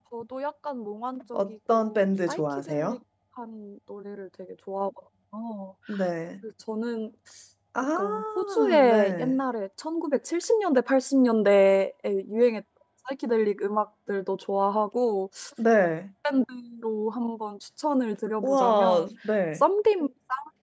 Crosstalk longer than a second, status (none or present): present